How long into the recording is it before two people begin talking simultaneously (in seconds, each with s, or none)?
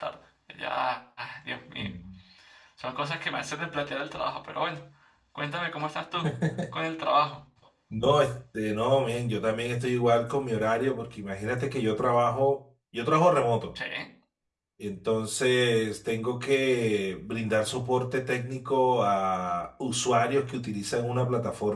none